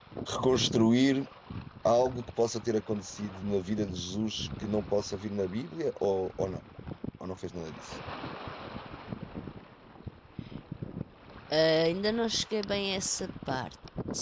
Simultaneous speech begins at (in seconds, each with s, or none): none